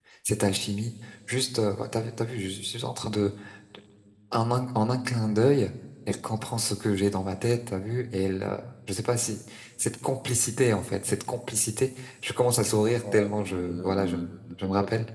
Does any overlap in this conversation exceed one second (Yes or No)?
Yes